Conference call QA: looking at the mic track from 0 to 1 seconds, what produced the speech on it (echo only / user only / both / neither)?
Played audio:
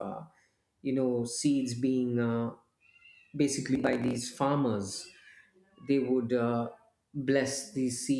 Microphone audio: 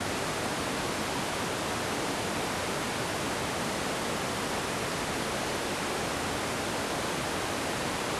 neither